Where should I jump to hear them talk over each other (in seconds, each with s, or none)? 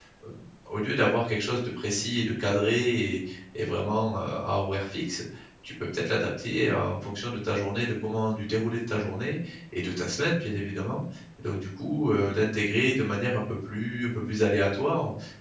none